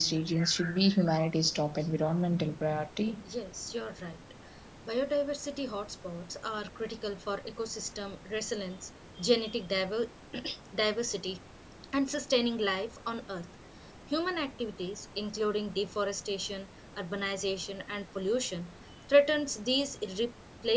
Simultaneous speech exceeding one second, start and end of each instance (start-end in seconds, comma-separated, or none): none